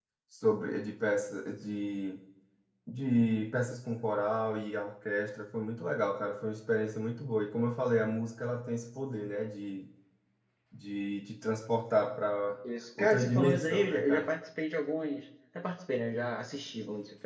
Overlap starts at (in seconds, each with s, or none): 13.0 s